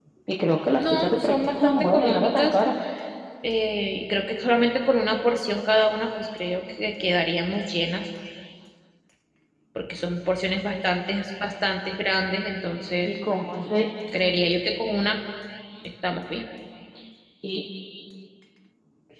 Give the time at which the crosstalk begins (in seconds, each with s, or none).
0.8 s